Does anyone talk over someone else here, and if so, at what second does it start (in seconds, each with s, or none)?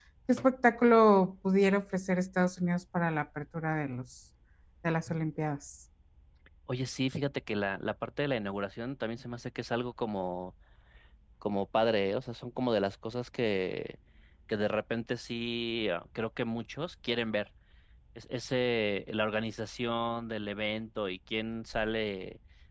none